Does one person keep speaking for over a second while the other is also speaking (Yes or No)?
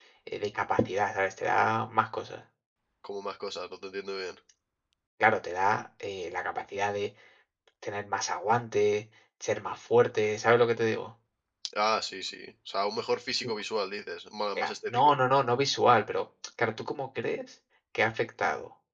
No